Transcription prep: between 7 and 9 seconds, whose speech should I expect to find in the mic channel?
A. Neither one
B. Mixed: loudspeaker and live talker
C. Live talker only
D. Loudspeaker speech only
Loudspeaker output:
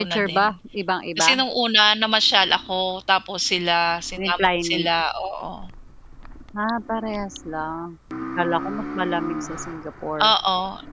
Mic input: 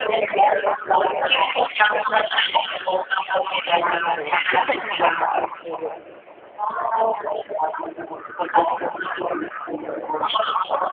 D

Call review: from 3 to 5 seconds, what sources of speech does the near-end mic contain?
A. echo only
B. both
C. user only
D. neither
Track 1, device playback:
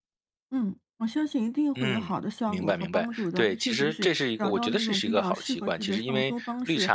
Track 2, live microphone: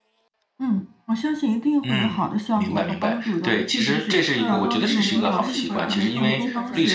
B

